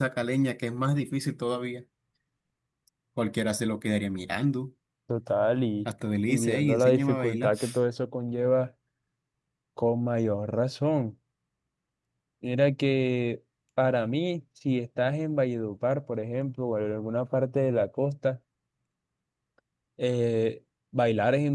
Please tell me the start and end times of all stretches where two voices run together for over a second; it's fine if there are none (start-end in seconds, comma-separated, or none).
6.3-7.5